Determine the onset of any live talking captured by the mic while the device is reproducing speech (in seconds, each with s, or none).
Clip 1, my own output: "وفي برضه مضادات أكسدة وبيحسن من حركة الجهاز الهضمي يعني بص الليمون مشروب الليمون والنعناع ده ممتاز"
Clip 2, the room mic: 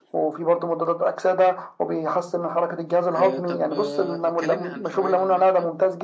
3.1 s